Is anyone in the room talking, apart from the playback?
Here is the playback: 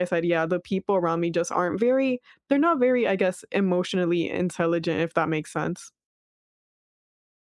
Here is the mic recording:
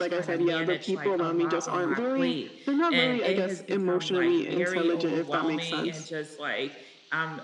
Yes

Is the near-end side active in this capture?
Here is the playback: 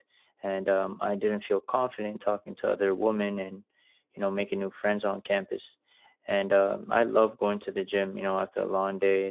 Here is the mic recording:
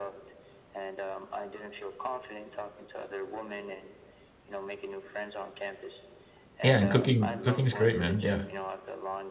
Yes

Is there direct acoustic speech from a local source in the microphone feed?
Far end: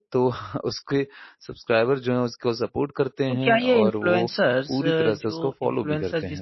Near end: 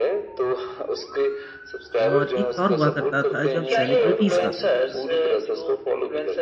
Yes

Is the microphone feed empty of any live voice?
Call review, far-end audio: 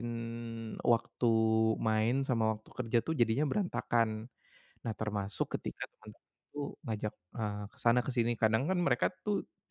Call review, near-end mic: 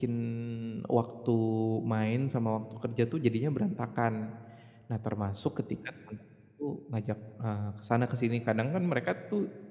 Yes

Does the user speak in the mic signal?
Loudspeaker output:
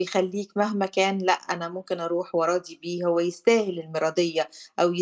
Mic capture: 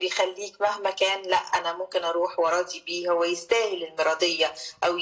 No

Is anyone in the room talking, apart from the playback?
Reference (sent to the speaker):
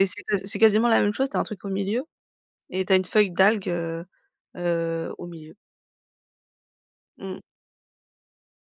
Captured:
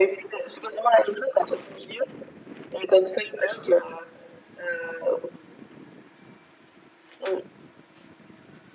No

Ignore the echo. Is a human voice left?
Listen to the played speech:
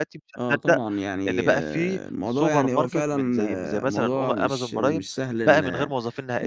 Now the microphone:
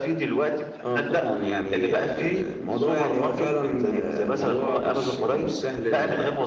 No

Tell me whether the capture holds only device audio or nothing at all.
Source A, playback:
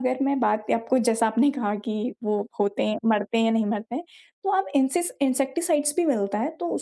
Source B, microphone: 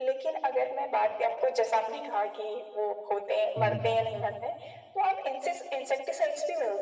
No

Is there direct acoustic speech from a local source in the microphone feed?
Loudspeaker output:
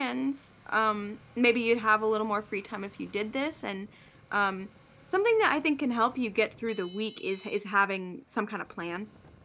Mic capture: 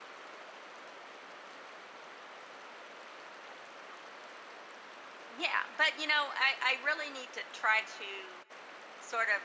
Yes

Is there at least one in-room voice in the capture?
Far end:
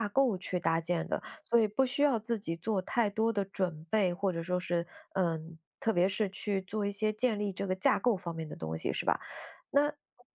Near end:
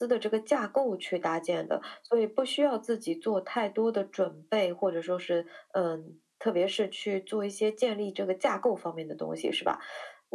No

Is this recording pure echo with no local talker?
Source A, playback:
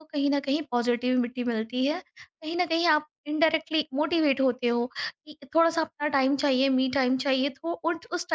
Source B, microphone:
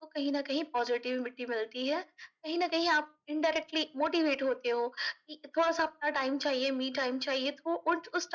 Yes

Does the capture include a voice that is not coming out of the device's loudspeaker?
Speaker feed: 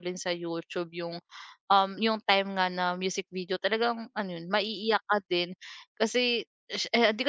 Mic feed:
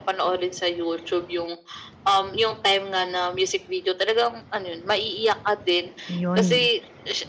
Yes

